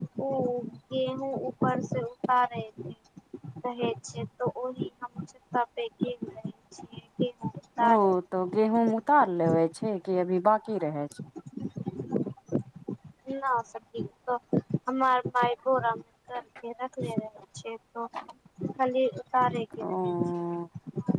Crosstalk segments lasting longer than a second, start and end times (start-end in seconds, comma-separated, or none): none